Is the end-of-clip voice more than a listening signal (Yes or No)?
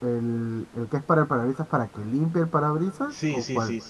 Yes